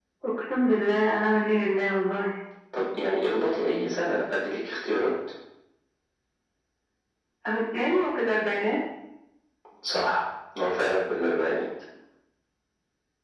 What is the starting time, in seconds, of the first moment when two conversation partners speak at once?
none

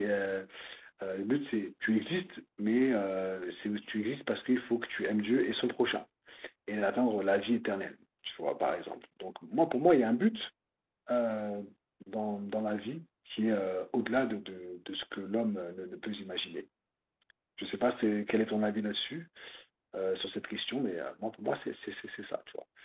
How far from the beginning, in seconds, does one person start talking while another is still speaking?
none

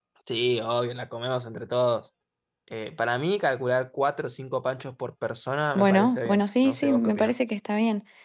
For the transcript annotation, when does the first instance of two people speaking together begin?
5.8 s

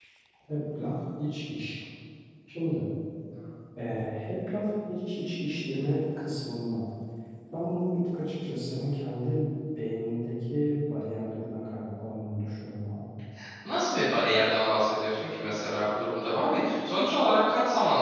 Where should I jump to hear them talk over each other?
none

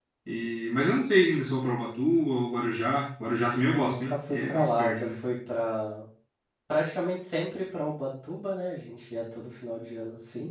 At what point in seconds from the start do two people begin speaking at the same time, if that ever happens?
3.7 s

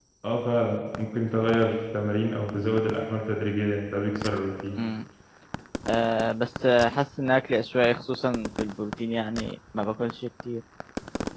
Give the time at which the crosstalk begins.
none

